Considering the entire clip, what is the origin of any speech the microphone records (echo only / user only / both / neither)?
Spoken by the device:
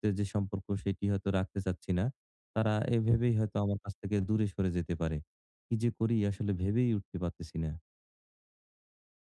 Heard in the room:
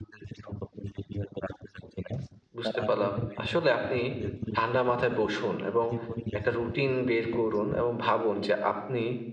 both